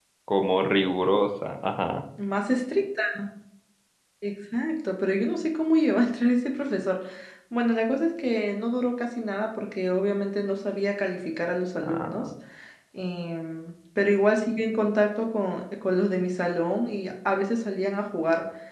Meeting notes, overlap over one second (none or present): none